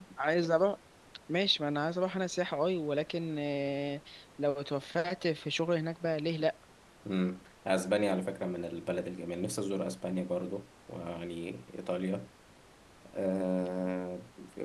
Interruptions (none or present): none